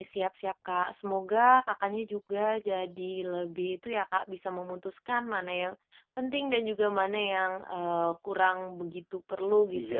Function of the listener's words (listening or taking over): taking over